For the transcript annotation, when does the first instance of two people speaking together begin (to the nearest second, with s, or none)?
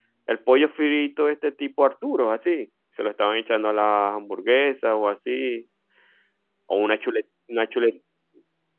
none